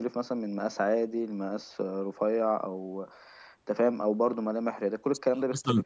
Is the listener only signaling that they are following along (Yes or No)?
No